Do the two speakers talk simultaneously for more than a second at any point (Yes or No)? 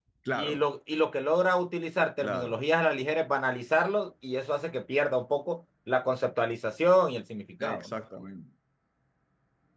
No